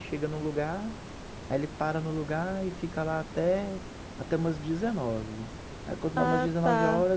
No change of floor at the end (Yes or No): Yes